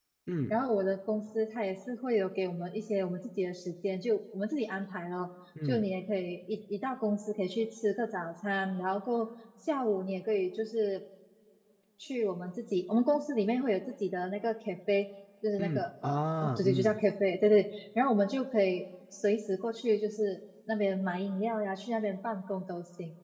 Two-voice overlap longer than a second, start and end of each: 15.6-17.0

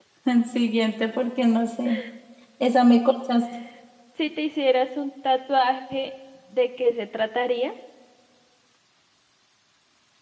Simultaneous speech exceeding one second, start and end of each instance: none

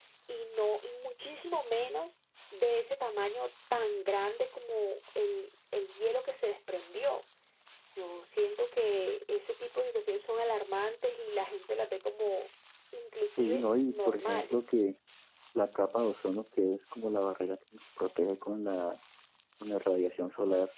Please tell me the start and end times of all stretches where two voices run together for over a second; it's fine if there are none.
13.4-14.6

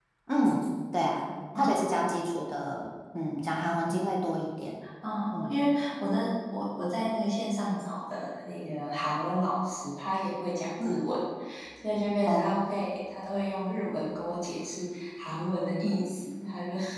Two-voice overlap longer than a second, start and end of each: none

